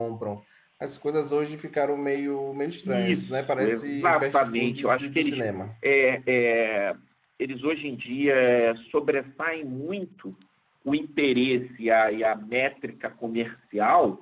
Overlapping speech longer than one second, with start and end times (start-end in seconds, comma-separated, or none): 2.8-5.4